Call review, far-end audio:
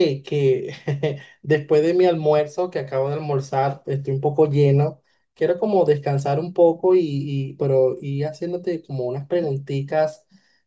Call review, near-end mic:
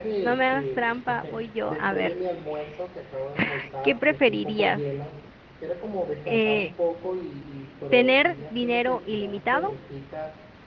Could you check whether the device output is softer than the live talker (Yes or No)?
Yes